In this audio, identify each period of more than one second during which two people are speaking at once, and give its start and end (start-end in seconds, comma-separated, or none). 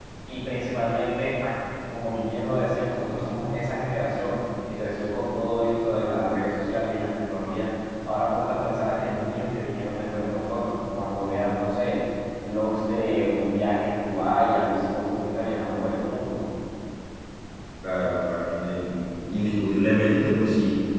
none